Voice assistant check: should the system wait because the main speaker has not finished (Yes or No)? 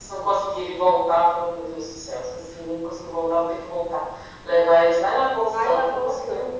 No